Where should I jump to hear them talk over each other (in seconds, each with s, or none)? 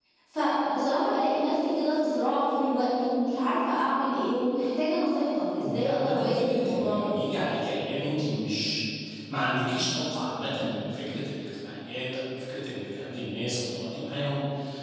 5.6 s